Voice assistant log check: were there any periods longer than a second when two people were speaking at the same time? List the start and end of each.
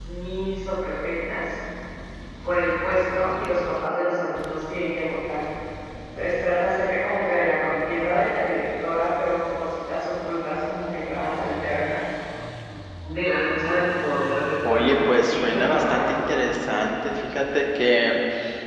14.7-16.3

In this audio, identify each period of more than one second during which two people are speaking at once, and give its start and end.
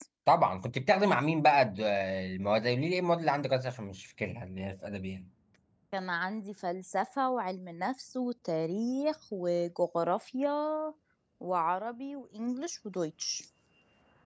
none

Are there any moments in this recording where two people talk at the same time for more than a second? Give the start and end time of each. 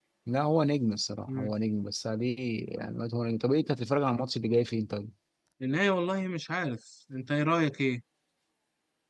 none

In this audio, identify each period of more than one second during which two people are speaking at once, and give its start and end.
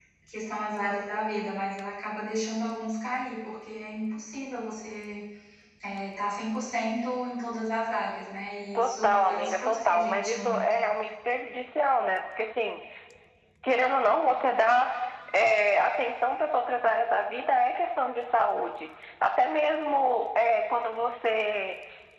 8.8-10.7

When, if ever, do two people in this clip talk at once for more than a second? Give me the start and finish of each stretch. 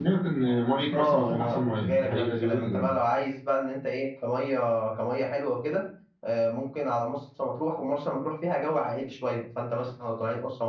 0.9-2.9

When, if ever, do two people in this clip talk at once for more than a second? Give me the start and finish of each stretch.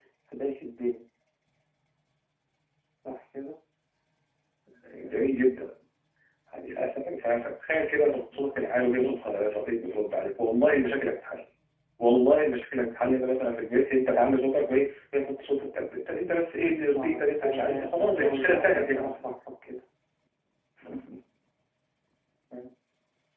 17.0-19.1

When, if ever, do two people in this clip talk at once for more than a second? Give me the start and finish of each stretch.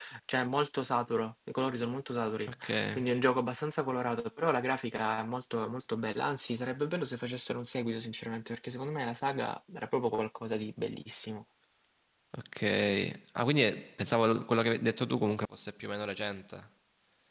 none

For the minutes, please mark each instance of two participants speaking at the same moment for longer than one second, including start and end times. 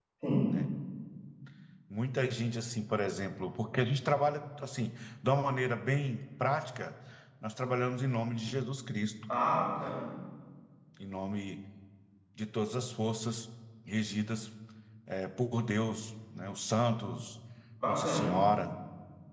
none

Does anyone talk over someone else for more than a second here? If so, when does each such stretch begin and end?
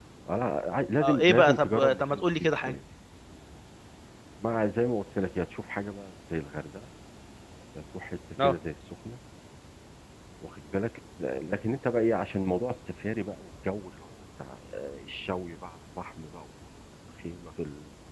1.0-2.8

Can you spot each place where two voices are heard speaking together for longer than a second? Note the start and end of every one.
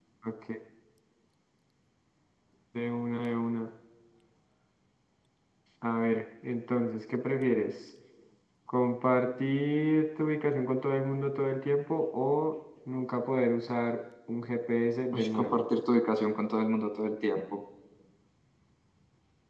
none

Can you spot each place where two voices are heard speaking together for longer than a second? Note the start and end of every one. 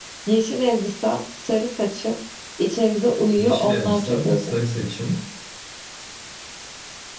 3.4-4.6

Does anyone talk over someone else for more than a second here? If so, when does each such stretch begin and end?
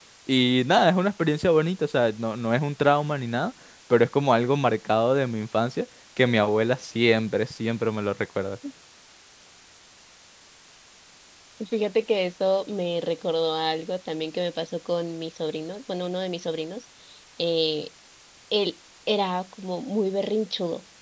none

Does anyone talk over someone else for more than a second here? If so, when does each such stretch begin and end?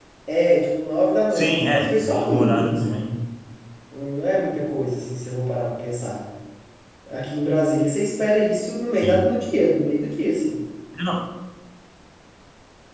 1.3-2.8

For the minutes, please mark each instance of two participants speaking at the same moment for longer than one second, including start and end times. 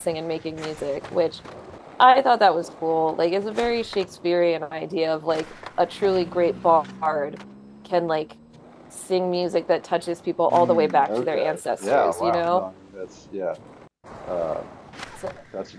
10.5-12.6

